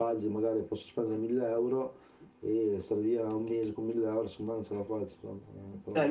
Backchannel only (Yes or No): No